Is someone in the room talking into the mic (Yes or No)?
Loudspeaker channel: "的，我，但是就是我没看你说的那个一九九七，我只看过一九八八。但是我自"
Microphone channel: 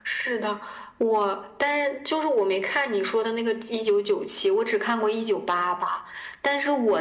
No